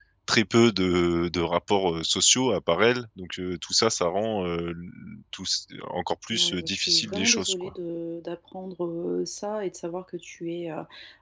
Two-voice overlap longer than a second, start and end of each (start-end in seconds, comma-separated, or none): 6.3-7.7